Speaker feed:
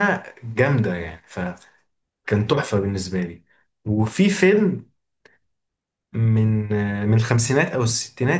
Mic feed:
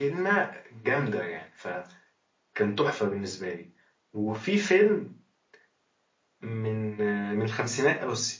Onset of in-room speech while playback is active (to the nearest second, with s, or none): none